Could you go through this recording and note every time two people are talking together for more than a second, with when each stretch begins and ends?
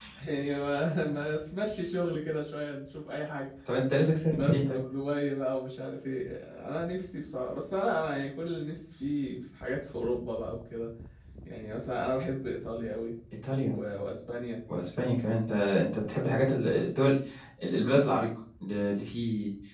none

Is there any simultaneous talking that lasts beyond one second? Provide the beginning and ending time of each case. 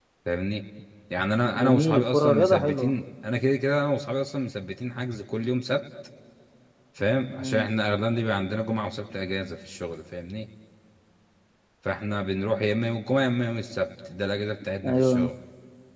1.6-2.9

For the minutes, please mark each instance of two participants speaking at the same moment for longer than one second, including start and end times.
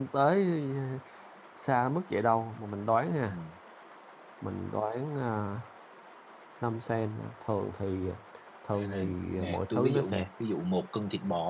8.7-10.2

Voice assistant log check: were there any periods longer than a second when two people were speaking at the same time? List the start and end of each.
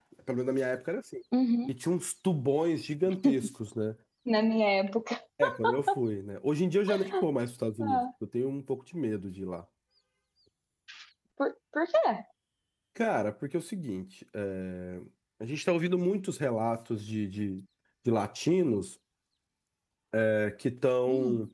none

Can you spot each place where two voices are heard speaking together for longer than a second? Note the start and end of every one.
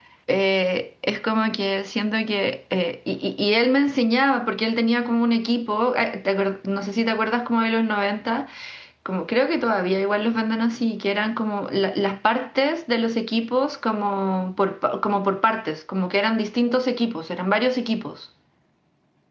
none

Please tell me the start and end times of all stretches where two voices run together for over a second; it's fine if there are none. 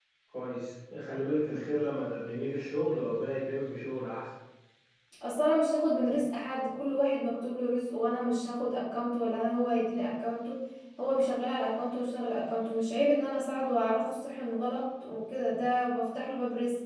none

